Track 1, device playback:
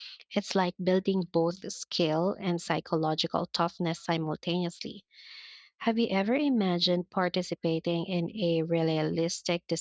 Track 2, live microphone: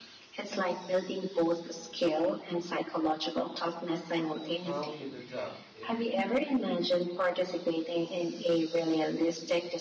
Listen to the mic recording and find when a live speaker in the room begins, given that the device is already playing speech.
5 s

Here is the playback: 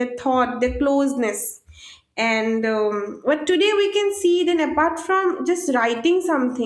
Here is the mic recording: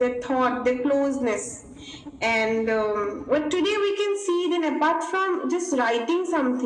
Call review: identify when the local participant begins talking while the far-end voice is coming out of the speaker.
none

